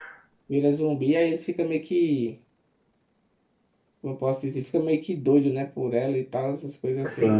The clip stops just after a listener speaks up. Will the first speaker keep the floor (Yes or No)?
No